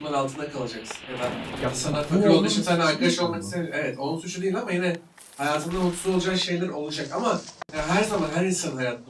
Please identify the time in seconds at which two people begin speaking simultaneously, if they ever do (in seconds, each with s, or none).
1.7 s